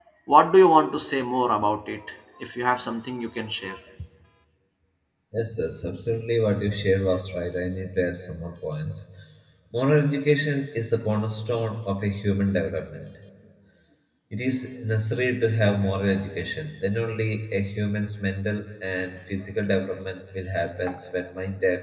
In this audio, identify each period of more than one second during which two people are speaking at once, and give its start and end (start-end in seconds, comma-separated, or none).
none